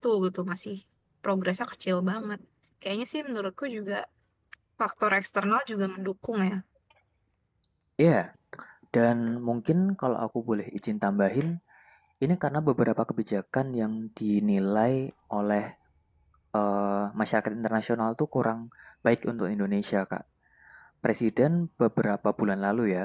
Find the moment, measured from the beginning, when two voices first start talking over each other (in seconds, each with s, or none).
none